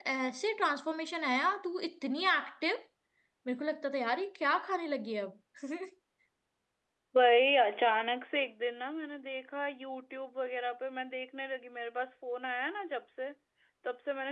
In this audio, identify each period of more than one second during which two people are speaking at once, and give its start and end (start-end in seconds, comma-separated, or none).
none